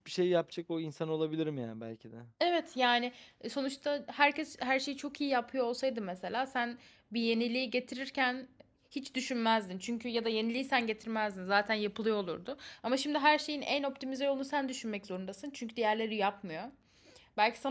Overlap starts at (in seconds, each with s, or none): none